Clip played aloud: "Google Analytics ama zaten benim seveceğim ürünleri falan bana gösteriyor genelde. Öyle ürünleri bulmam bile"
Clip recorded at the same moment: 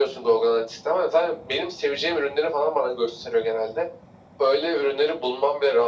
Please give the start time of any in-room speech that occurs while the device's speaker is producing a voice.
none

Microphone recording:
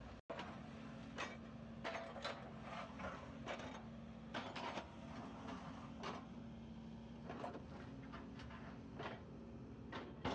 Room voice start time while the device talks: none

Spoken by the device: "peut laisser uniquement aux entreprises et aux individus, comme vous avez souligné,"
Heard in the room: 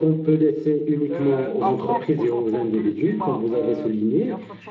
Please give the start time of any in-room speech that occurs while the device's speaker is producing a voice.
1.1 s

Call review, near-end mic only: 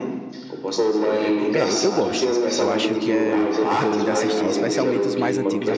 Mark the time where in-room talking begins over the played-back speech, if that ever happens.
1.5 s

